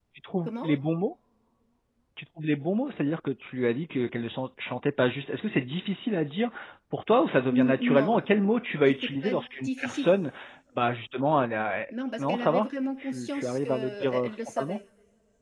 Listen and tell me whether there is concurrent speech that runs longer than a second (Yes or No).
Yes